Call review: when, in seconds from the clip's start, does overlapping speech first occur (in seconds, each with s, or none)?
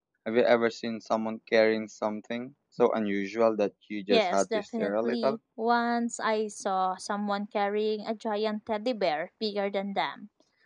4.1 s